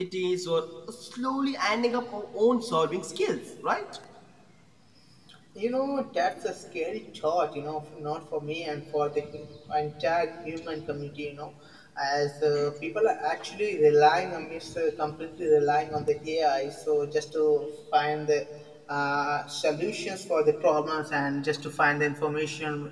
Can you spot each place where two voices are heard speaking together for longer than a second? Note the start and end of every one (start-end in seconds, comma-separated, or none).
none